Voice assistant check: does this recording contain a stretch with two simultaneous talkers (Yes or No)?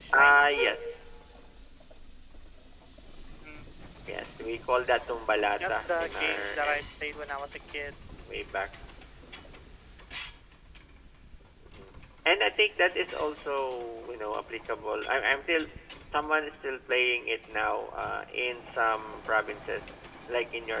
Yes